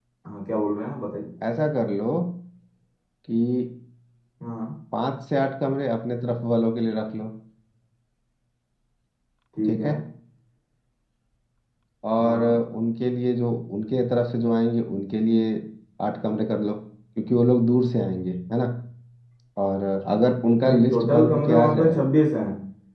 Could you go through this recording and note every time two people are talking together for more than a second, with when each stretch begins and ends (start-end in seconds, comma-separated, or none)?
20.6-22.0